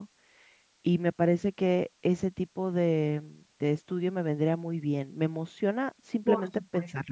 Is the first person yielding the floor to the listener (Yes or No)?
Yes